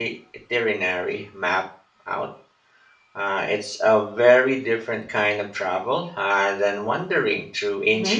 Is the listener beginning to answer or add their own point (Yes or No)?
Yes